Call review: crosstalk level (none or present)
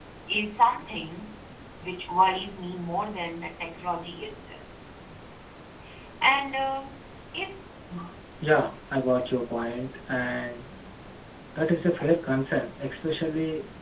none